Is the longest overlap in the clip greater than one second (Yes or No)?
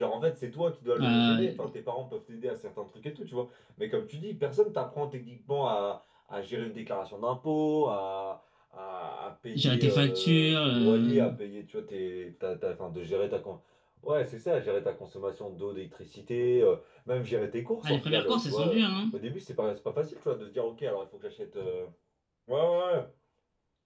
Yes